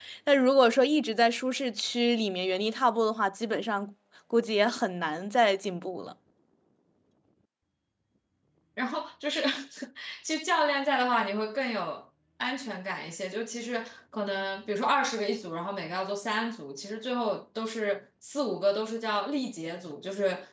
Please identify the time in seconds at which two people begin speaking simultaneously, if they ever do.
none

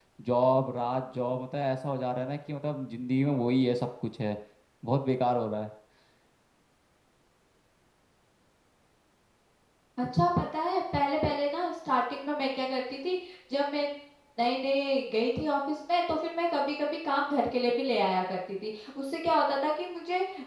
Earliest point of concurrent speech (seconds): none

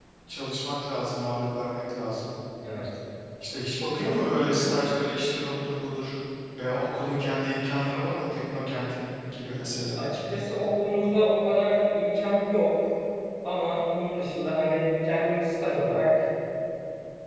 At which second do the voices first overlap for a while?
none

